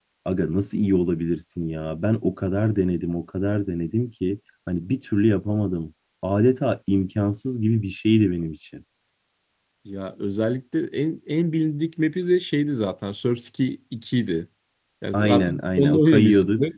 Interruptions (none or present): present